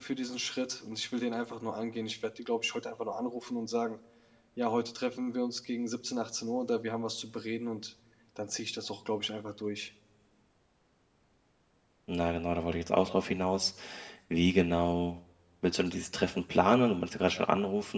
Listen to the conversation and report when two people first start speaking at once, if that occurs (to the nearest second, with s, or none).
none